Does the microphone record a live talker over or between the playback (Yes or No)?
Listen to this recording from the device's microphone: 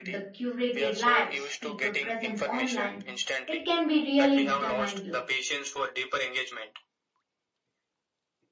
Yes